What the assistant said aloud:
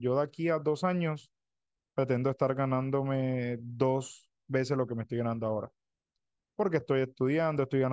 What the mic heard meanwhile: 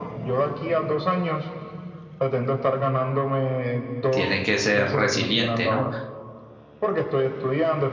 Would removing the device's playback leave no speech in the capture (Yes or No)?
No